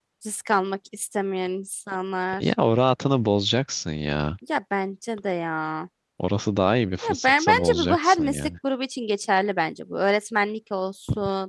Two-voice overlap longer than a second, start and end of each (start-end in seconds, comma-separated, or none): 7.0-8.5